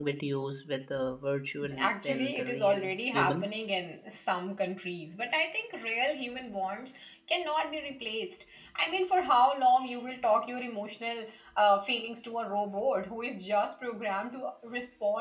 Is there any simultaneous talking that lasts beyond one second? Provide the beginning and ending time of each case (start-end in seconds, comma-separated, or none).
1.8-3.6